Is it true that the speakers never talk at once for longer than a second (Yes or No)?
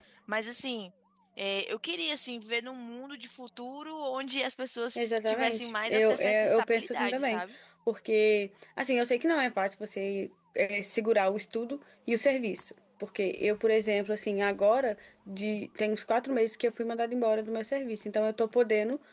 No